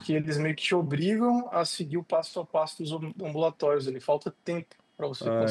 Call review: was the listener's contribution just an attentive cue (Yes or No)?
No